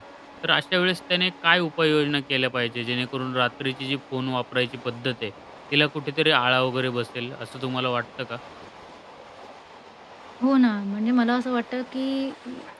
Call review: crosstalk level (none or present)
none